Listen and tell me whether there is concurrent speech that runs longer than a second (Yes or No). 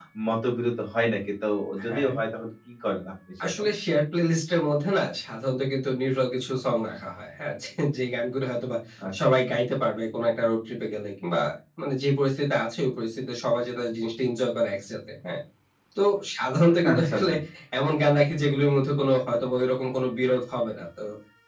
No